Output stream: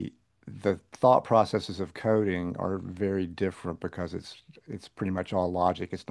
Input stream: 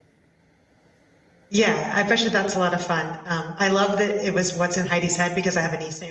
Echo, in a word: none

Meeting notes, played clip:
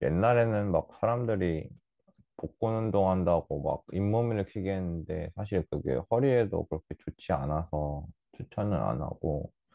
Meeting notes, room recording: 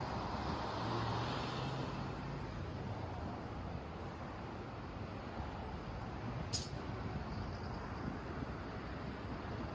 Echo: none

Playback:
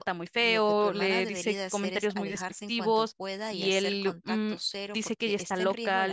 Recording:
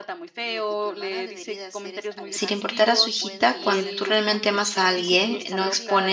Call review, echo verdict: present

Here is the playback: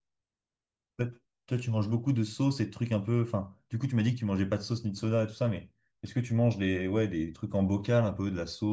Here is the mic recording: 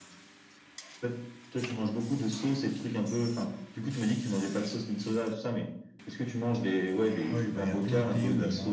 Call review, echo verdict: present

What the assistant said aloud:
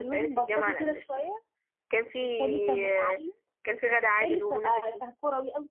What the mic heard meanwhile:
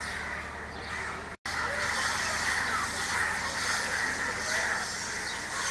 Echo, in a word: none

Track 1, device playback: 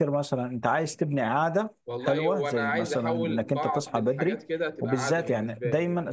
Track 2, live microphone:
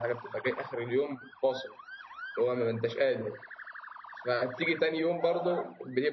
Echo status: none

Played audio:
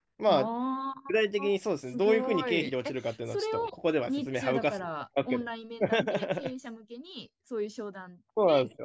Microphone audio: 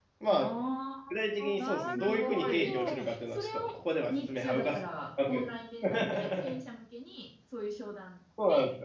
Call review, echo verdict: present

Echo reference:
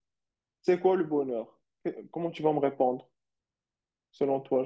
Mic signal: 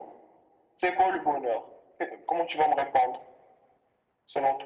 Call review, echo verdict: present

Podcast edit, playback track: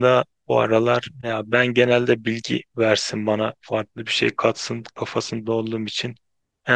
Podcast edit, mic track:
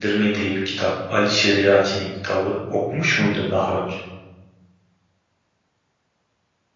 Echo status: none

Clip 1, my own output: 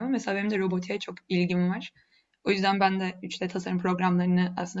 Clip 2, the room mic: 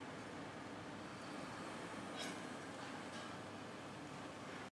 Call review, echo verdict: none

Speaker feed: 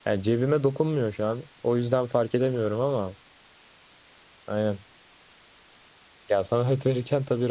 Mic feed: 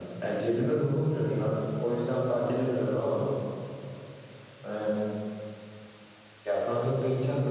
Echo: present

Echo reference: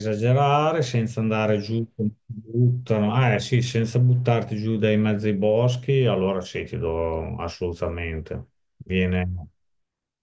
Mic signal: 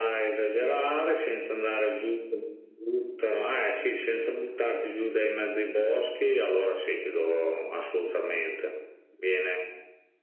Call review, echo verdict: present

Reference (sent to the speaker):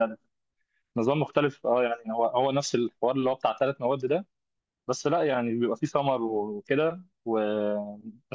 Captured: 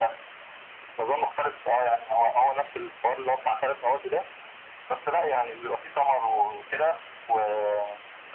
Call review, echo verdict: present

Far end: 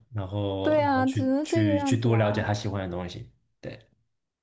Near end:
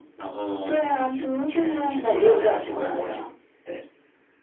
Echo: present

